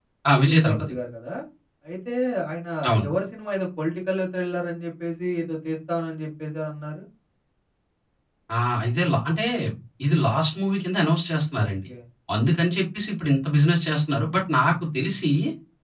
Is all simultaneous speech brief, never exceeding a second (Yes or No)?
Yes